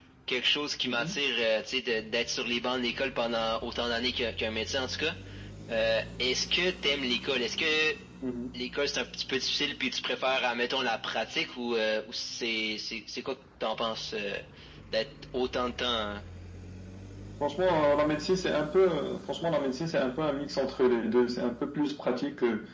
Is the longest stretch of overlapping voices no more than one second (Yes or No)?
Yes